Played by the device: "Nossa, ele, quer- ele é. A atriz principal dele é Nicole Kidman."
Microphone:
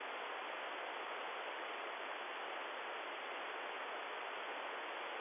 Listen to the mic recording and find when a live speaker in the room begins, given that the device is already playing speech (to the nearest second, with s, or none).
none